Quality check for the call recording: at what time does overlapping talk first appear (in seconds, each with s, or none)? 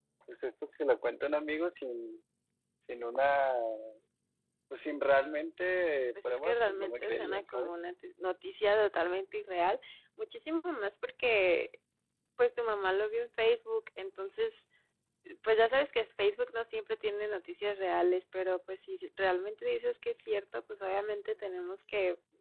6.2 s